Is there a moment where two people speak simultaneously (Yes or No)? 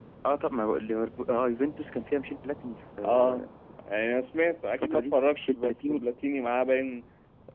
Yes